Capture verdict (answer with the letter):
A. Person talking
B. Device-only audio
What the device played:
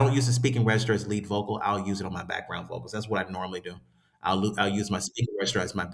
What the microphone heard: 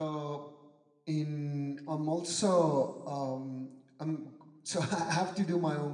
A